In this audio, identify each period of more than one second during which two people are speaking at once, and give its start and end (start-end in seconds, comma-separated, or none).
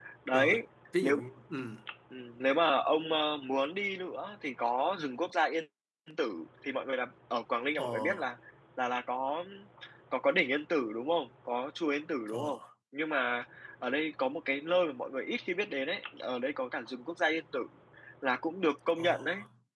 none